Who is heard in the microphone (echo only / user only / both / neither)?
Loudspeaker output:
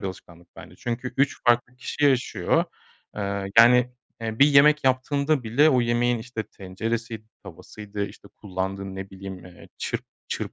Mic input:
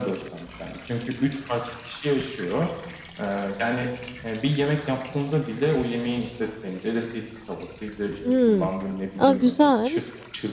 both